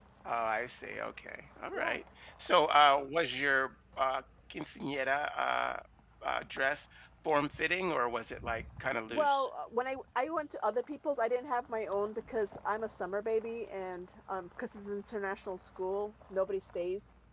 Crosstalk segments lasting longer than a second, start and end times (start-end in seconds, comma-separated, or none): none